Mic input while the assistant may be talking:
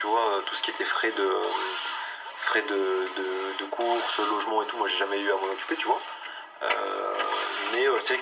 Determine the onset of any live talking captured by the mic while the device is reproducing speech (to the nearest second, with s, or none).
none